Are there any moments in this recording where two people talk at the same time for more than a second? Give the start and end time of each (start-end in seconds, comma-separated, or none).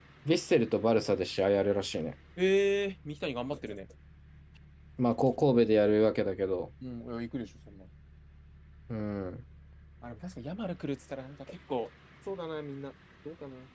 none